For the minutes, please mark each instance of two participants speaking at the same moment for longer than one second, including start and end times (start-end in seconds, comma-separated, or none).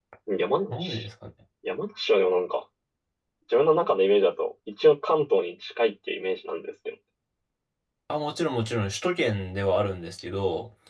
none